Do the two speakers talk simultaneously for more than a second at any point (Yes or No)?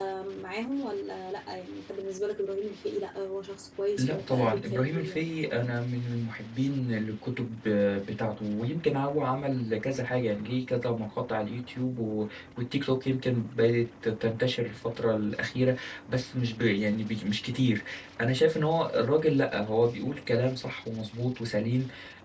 Yes